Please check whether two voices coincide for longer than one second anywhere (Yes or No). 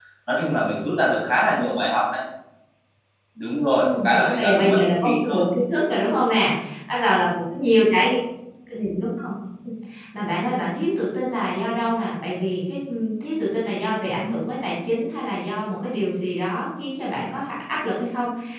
Yes